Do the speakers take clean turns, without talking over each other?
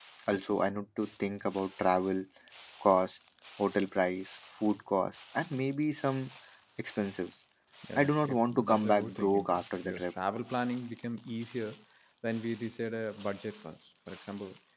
No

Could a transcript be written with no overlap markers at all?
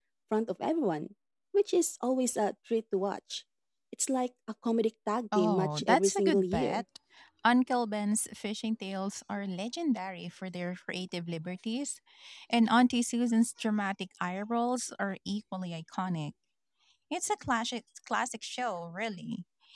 No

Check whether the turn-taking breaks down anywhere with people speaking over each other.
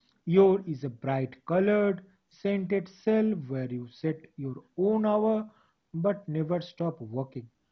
No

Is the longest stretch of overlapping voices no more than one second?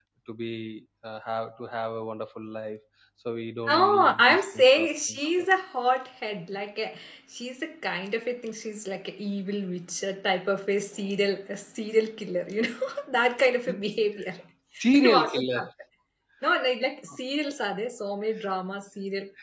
No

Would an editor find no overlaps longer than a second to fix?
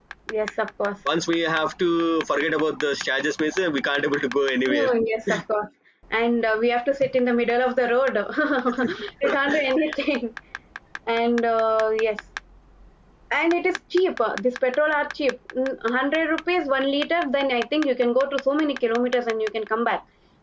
Yes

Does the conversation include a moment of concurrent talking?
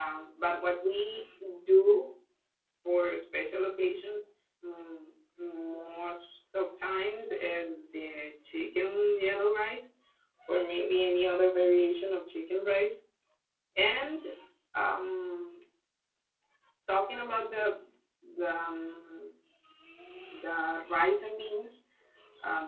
No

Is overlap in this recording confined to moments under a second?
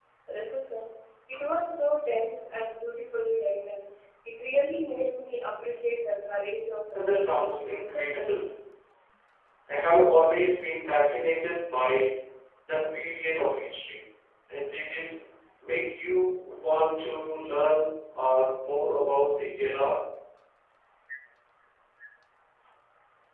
No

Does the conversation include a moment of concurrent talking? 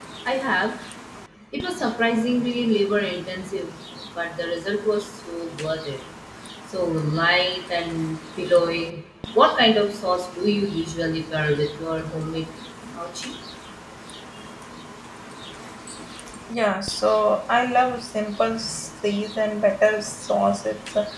No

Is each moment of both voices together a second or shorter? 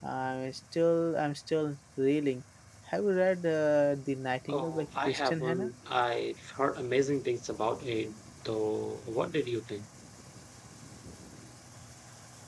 No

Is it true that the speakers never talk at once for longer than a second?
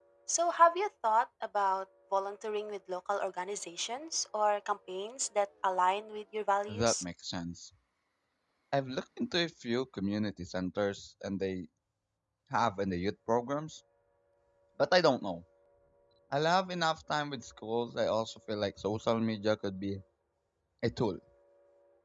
Yes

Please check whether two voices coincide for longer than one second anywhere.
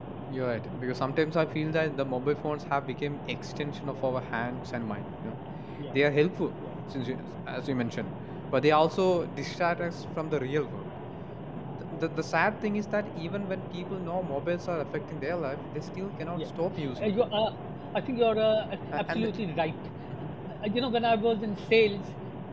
No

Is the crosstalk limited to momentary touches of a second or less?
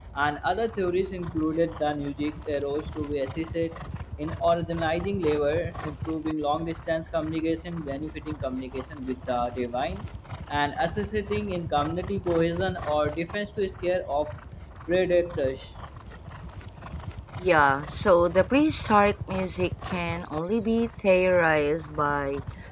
Yes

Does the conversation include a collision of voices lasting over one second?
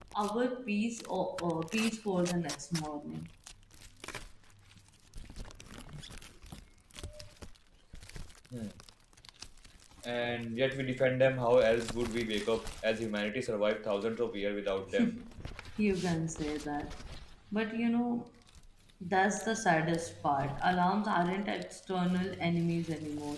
No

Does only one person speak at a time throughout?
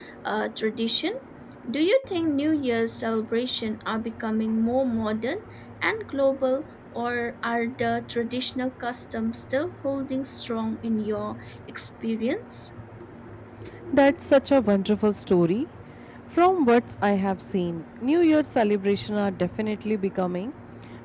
Yes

